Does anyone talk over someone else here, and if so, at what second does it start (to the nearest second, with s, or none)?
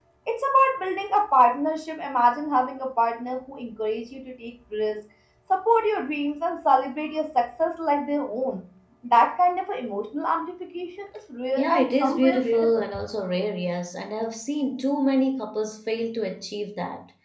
12 s